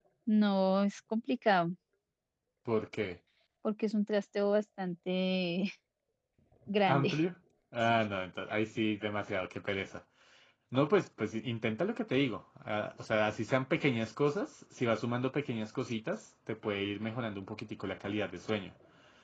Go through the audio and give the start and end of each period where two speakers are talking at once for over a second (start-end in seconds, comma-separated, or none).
none